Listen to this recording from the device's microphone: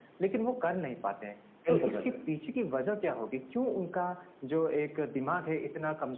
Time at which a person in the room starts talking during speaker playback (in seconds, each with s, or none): 1.6 s